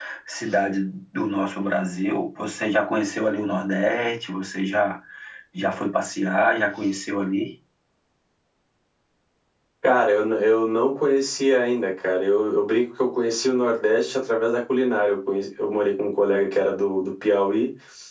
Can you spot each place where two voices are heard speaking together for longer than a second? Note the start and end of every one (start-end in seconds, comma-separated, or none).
none